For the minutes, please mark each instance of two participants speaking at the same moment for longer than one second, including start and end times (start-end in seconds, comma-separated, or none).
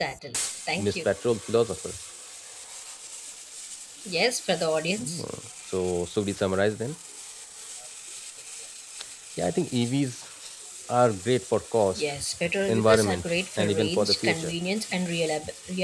12.7-14.6